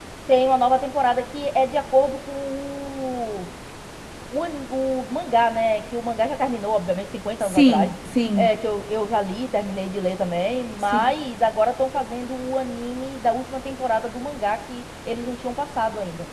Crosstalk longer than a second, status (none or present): none